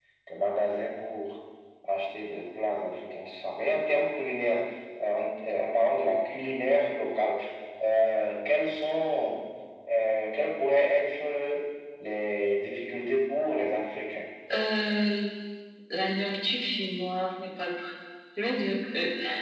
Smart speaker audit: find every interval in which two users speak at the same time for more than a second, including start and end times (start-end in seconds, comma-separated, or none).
none